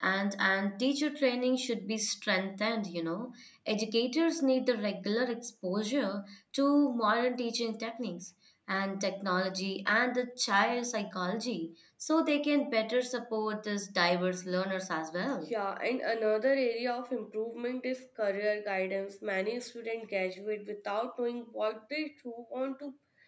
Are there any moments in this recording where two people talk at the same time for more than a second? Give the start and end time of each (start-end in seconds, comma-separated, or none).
none